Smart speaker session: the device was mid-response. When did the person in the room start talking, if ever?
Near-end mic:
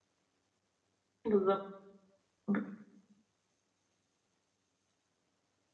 1.2 s

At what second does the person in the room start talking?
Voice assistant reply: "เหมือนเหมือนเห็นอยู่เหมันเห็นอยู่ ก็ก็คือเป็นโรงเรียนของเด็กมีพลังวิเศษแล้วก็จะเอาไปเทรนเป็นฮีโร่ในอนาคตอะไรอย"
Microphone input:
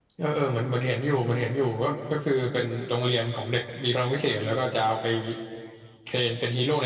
none

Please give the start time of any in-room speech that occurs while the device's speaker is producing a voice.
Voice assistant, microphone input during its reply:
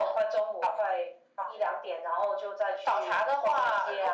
none

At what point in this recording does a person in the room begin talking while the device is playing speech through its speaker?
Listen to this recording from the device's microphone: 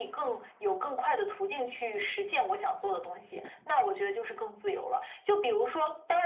none

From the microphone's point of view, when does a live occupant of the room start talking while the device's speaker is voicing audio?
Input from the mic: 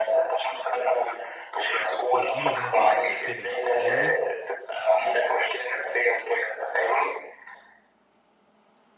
2.1 s

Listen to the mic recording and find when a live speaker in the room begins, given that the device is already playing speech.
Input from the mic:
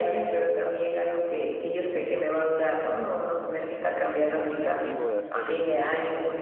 4.0 s

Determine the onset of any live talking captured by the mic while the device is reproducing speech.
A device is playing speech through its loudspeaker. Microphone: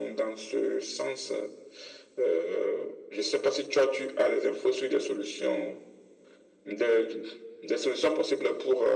none

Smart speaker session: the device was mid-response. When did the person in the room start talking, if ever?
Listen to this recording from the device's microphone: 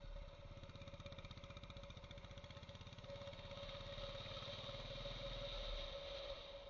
none

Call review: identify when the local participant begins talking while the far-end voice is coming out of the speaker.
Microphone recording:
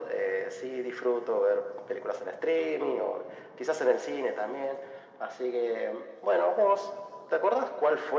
none

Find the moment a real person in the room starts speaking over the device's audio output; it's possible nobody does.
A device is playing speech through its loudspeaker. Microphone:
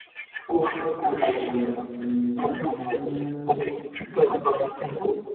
0.5 s

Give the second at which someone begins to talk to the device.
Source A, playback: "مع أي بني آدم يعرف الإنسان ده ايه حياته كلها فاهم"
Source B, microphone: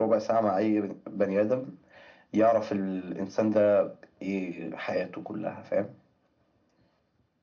none

